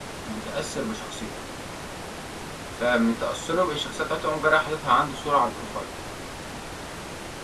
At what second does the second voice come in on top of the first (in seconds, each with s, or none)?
none